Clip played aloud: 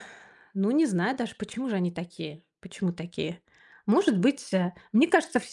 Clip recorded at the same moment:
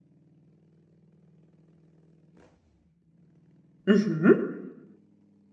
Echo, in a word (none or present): none